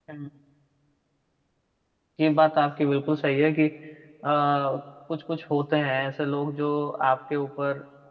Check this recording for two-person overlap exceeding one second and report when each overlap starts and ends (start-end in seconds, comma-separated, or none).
none